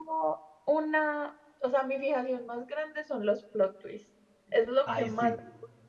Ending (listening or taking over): listening